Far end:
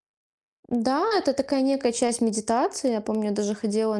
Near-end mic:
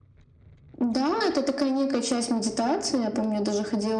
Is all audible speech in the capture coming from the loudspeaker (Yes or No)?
Yes